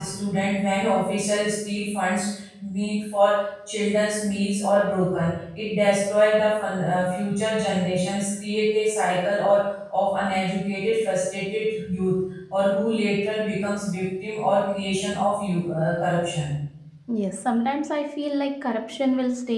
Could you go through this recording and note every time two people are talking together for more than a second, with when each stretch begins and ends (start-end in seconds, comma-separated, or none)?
none